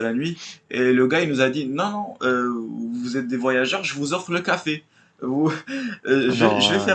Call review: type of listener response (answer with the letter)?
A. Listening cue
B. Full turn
A